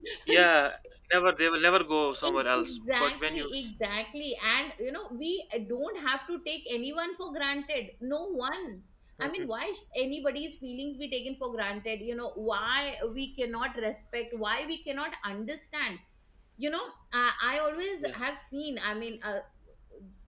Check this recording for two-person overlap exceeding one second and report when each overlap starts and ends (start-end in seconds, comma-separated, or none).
2.2-3.7